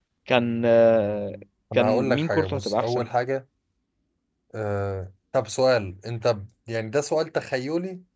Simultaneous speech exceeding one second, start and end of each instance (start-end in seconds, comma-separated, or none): 1.7-3.1